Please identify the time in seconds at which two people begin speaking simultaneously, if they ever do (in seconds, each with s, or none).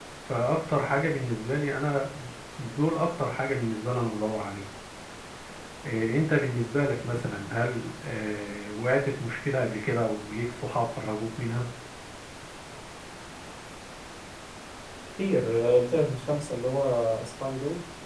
none